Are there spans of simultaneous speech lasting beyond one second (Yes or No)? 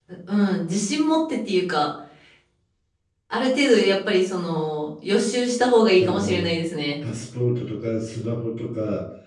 No